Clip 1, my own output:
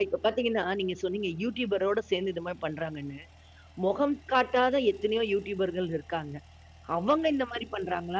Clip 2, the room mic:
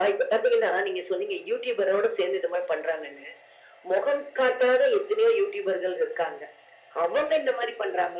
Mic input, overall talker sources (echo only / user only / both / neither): echo only